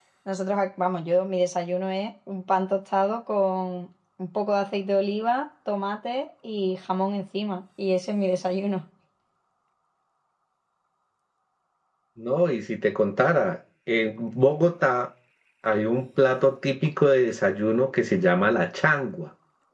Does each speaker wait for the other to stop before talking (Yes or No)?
Yes